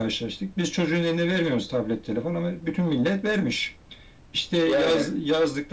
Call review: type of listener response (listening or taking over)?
listening